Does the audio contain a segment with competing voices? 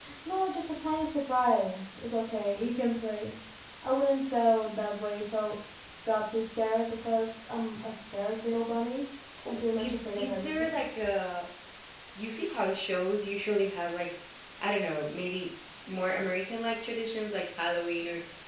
Yes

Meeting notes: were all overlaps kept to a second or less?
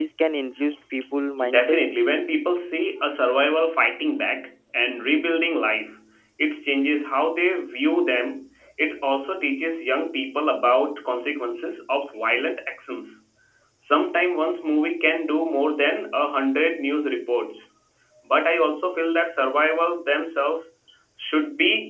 Yes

